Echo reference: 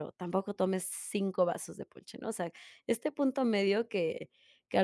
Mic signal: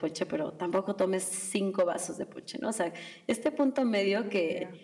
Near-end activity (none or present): present